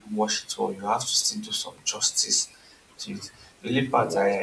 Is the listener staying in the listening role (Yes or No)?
Yes